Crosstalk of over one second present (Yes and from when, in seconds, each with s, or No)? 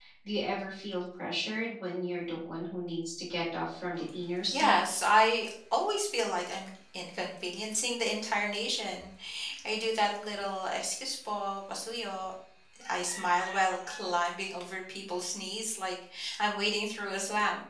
No